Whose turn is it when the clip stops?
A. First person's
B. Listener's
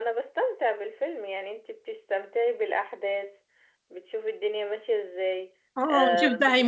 B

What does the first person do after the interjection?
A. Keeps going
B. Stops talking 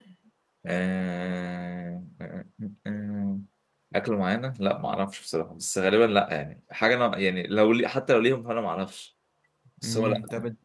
B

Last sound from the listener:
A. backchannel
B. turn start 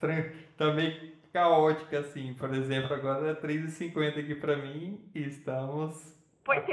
B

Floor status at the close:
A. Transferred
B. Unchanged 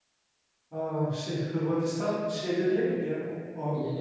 A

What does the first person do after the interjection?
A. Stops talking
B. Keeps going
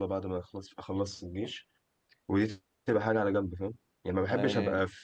B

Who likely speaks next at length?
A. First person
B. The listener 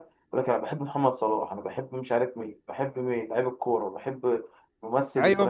B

